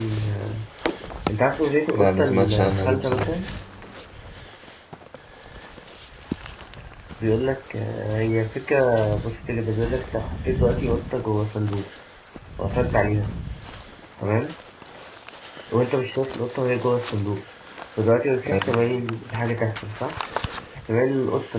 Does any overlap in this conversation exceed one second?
Yes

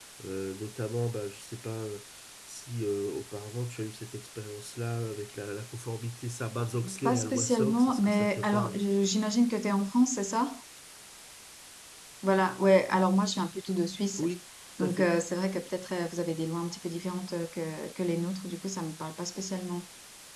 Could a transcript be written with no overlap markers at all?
No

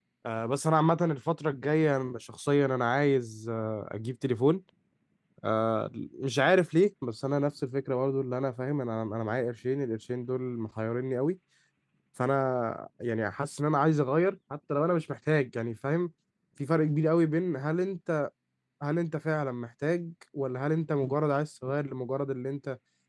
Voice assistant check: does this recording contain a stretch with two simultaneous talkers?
No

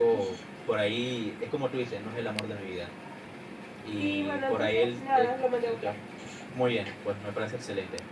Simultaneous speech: Yes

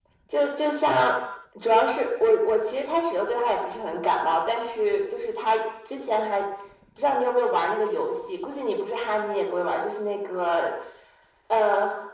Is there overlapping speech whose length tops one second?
No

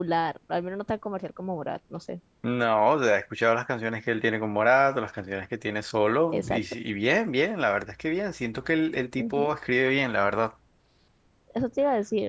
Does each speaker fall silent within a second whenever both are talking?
Yes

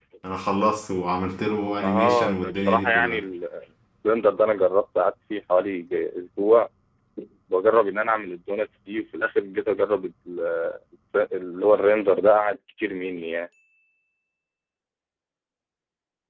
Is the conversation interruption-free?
No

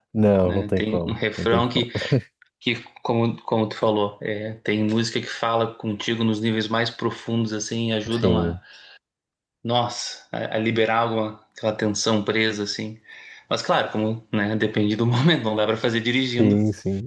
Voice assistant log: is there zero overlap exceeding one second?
No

